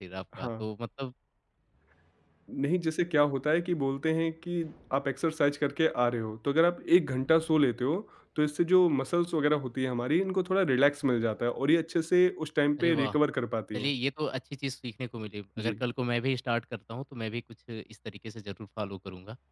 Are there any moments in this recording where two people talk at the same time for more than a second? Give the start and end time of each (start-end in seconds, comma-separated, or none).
none